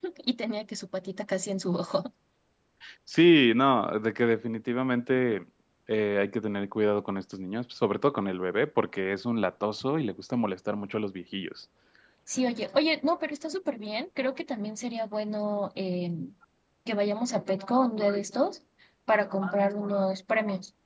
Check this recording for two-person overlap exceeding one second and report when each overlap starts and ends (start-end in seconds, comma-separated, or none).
none